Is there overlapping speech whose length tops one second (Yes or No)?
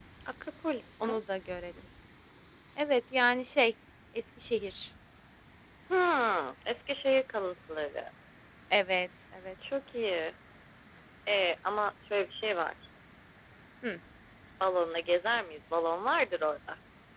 No